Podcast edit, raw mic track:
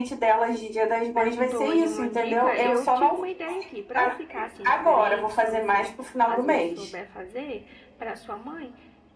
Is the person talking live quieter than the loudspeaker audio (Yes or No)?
Yes